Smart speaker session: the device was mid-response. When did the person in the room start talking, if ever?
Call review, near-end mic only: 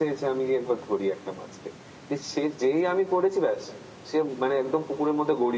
none

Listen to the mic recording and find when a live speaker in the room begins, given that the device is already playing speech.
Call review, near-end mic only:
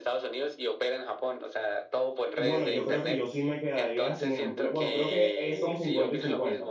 2.3 s

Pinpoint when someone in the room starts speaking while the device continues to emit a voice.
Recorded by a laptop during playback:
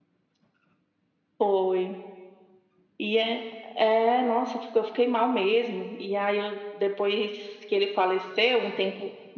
none

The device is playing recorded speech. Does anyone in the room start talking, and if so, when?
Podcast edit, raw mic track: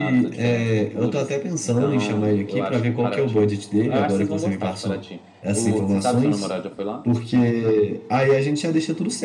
none

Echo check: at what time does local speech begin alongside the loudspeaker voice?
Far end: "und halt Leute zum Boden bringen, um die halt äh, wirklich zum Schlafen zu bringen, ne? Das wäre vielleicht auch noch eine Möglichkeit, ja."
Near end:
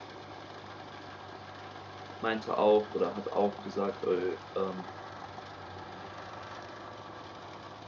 2.2 s

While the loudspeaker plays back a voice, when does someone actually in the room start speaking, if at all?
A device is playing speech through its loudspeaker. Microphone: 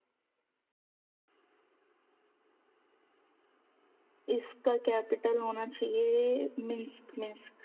4.3 s

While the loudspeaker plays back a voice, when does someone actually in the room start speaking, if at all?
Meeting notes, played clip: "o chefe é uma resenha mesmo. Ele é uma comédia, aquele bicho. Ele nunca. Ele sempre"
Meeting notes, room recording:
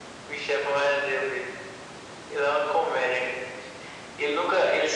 none

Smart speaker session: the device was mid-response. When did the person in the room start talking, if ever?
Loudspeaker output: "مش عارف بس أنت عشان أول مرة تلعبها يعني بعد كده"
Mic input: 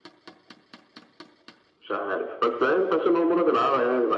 none

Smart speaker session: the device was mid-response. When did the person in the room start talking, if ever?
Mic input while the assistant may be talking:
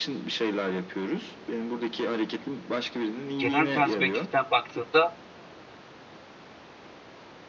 3.4 s

